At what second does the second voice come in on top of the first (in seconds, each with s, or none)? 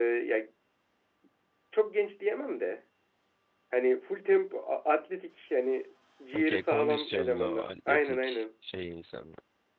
6.3 s